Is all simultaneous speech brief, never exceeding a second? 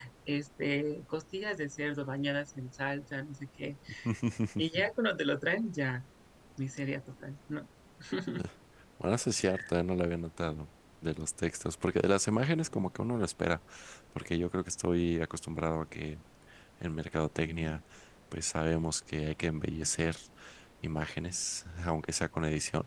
Yes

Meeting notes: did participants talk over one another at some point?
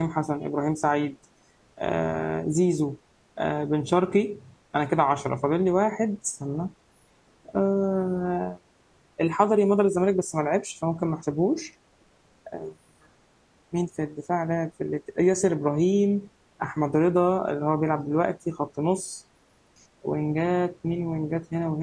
No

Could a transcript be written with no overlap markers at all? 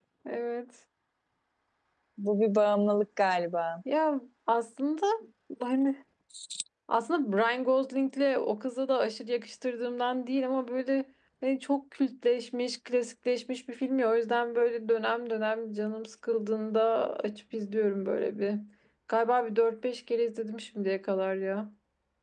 Yes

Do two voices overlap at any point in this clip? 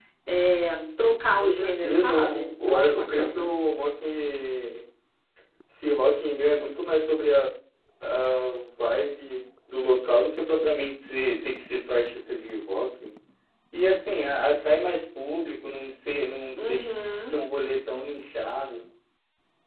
Yes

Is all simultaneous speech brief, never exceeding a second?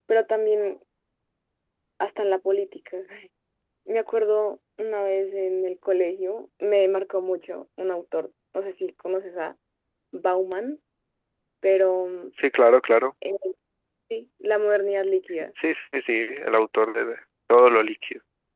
Yes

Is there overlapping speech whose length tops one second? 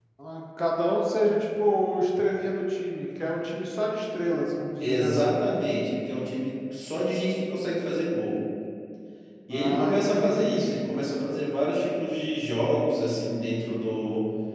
Yes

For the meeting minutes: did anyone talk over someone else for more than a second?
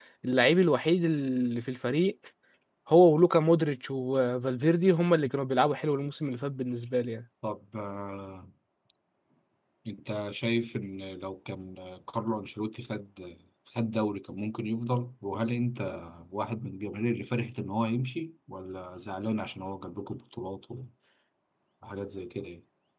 No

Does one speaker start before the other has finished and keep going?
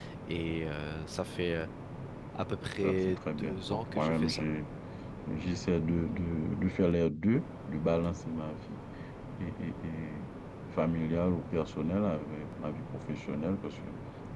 Yes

